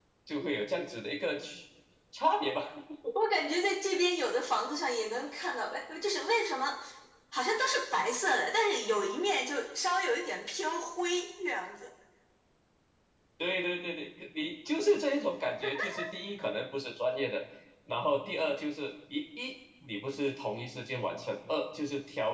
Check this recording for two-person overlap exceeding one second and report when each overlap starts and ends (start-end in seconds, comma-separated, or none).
none